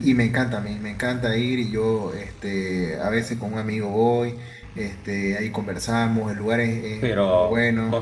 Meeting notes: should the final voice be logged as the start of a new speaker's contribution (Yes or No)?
Yes